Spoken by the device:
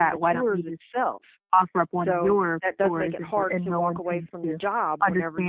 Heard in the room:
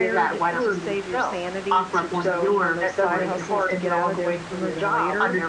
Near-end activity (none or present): present